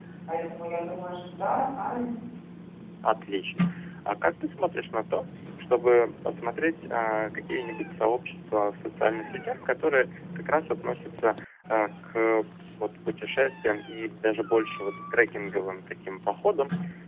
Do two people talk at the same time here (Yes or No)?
No